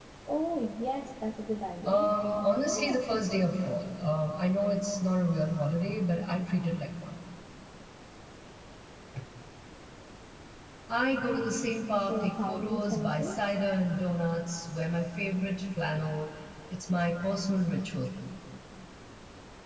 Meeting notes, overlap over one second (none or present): present